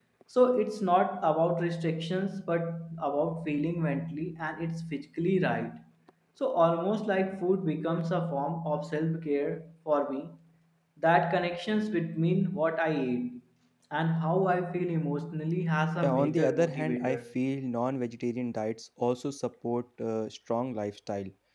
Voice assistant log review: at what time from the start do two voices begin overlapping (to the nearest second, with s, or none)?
16 s